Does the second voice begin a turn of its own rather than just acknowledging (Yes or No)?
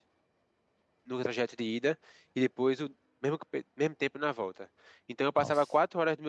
No